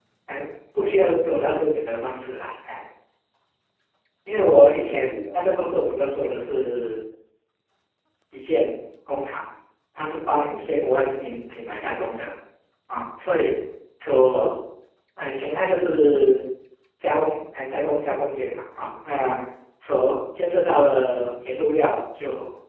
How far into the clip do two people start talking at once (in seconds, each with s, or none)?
4.4 s